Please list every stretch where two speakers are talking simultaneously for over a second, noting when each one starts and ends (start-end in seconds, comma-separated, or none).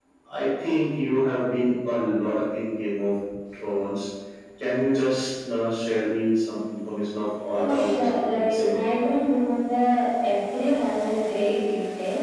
7.5-8.8